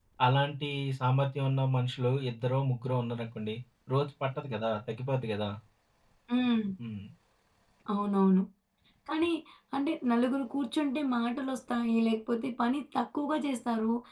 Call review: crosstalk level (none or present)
none